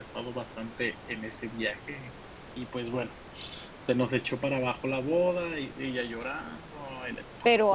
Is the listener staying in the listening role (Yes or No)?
No